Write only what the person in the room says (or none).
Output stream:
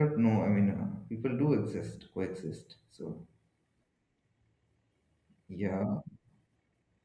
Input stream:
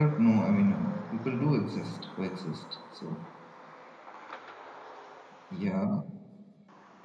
none